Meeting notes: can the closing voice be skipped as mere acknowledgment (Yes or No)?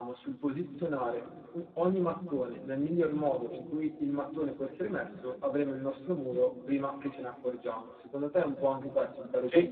No